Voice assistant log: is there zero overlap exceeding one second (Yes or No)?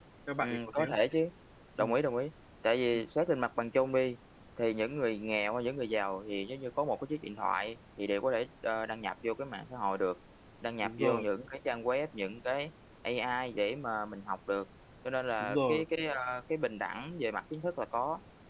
Yes